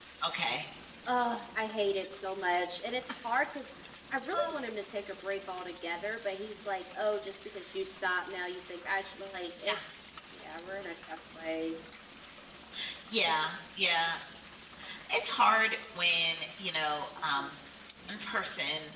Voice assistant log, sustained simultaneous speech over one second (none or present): none